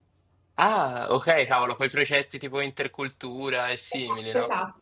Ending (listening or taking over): taking over